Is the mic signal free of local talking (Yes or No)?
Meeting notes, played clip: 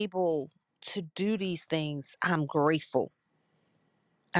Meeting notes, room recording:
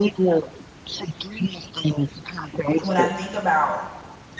No